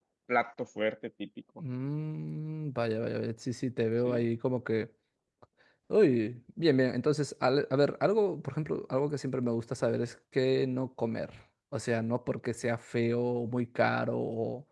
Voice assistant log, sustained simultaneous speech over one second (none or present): none